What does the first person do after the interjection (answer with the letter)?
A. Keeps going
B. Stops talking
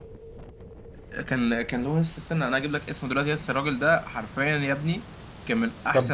B